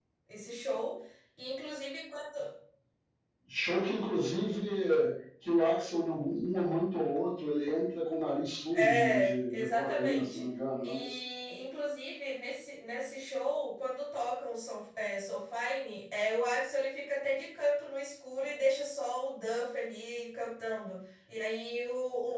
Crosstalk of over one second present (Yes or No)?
Yes